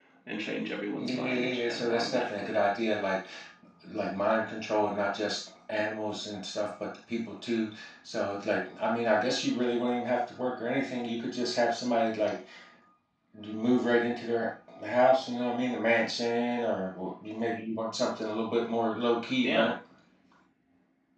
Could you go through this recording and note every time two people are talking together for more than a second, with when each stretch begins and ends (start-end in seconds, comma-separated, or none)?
1.0-2.5